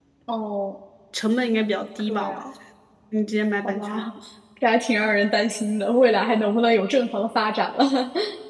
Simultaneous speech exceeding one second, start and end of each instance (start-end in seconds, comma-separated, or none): none